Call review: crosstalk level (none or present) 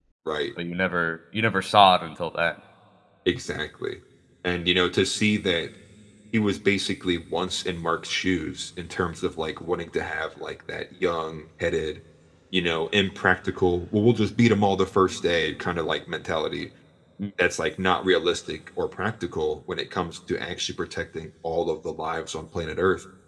none